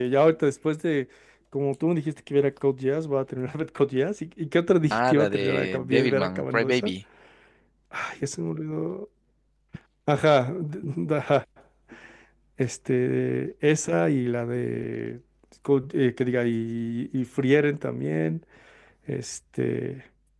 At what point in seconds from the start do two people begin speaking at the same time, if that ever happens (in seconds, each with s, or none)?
4.9 s